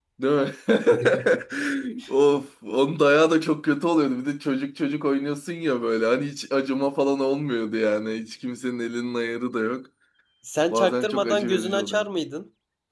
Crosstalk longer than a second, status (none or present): present